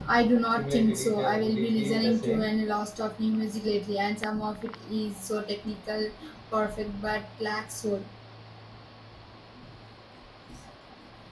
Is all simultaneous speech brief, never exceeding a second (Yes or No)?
No